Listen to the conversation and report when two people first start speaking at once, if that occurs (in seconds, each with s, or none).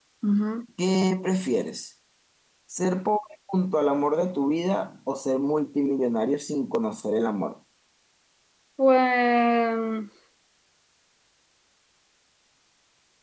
none